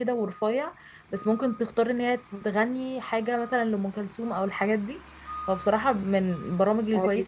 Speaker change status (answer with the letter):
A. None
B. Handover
A